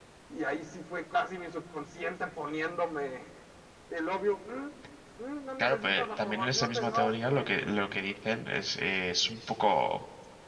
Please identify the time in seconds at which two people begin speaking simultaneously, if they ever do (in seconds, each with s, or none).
5.6 s